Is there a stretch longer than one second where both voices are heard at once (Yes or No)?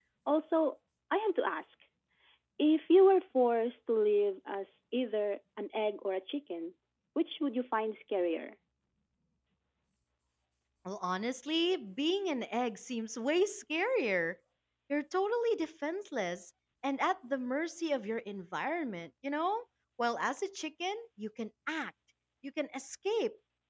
No